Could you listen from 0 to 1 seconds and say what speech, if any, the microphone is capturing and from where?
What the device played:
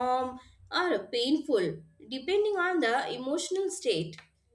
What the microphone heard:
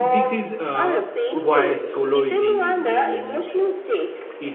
both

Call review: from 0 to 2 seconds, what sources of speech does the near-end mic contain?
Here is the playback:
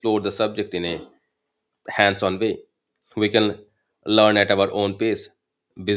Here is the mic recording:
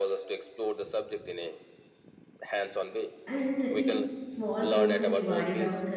echo only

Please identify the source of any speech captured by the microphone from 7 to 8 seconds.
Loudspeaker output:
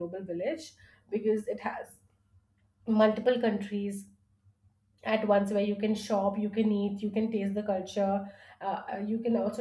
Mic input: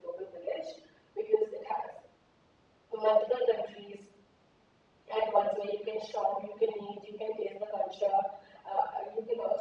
echo only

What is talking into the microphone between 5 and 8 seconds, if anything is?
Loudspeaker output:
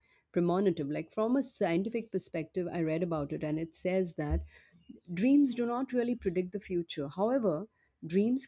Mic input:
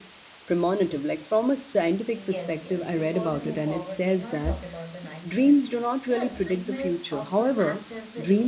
both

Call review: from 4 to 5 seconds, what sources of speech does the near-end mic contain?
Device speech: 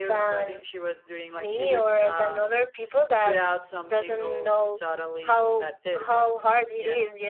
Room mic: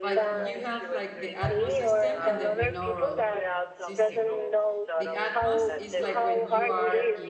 both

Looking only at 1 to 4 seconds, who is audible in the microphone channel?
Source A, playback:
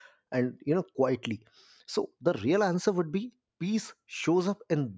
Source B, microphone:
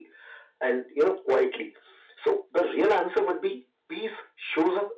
echo only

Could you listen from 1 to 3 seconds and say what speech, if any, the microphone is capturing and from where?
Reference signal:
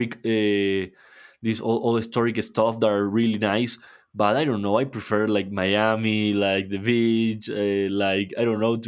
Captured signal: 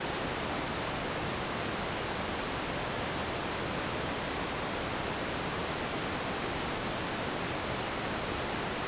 neither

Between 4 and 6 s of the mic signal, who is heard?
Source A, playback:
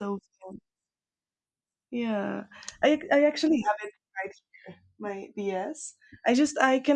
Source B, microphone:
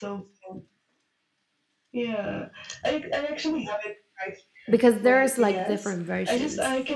both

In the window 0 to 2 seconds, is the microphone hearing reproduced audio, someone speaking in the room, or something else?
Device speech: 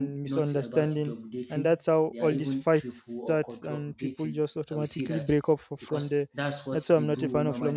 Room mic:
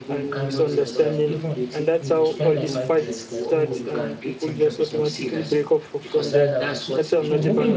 both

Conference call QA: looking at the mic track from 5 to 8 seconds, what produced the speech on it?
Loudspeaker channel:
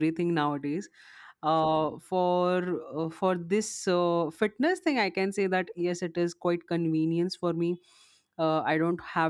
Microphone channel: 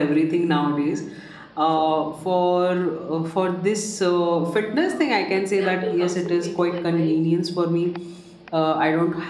both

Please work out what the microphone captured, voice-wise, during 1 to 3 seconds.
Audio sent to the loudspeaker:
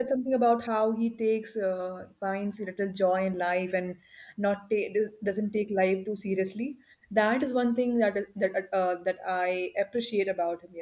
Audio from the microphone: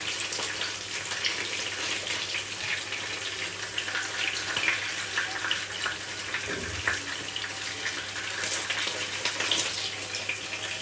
neither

